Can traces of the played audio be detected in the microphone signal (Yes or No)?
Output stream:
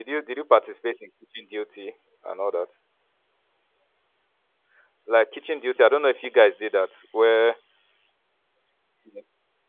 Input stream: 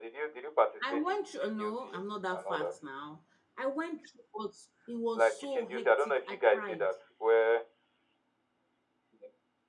Yes